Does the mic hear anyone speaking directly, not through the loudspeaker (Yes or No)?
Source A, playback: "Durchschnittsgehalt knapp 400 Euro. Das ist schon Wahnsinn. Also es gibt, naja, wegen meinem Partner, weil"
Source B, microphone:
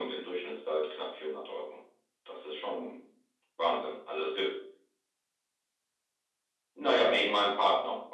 No